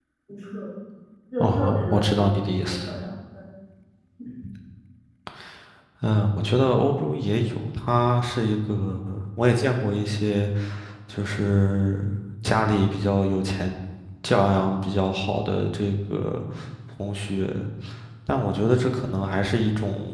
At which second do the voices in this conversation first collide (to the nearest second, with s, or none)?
1 s